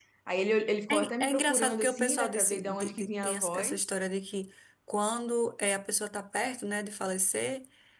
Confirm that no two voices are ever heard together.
No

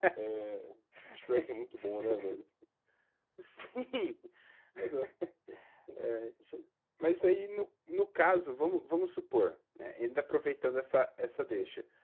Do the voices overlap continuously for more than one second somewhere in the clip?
No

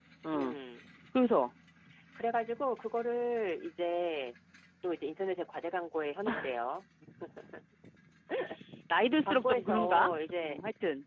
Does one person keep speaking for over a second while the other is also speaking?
Yes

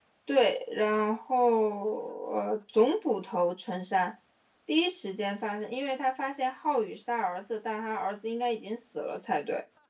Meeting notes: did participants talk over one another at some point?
No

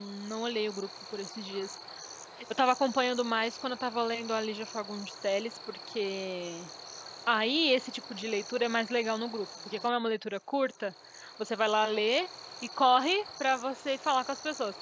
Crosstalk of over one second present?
No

